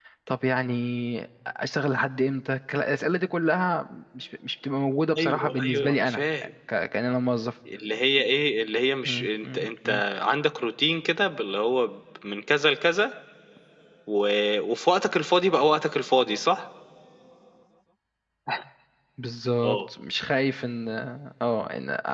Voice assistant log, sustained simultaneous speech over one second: present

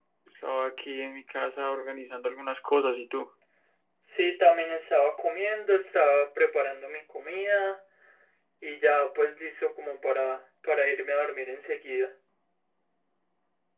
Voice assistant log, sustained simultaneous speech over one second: none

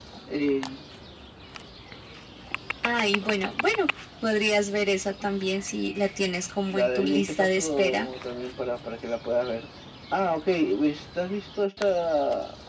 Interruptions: present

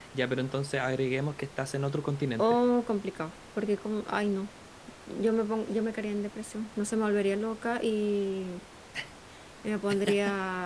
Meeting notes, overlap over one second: none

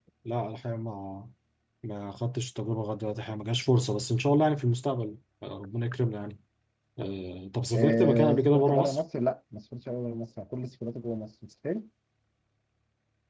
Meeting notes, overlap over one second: present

